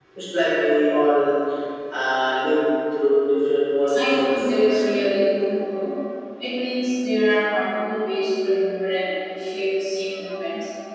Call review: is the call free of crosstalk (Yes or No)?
No